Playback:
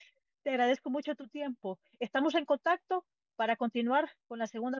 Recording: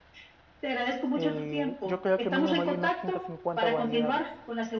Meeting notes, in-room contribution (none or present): present